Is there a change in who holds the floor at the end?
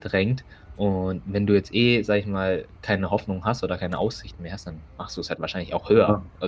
Yes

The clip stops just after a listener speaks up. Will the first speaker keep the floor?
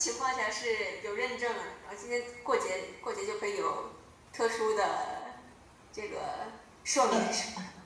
No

